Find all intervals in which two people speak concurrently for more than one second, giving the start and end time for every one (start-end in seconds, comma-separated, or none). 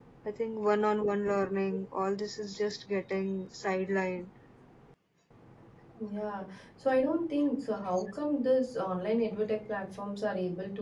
none